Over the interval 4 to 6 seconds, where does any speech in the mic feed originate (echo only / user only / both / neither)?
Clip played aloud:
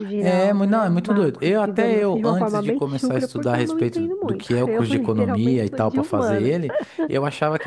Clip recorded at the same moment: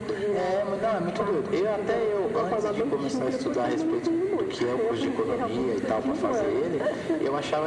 echo only